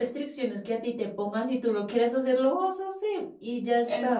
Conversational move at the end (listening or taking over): taking over